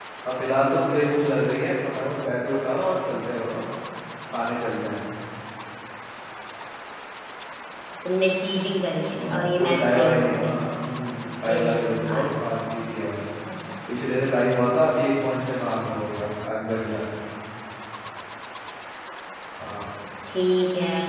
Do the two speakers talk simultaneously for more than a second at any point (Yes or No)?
Yes